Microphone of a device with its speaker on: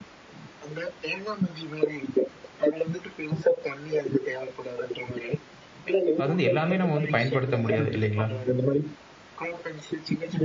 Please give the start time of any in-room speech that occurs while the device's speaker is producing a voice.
6.2 s

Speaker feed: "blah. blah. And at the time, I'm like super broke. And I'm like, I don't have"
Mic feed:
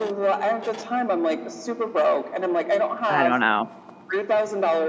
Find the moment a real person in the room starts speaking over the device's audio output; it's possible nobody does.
3.1 s

